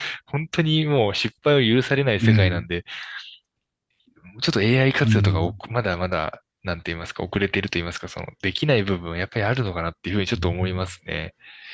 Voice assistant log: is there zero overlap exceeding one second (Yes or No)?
Yes